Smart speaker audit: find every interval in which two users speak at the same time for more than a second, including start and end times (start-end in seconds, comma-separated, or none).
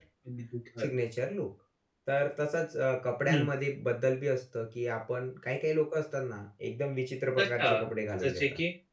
none